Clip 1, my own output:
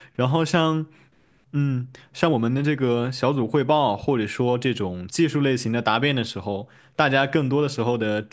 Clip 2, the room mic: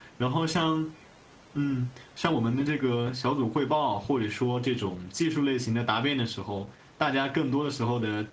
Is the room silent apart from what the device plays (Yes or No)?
Yes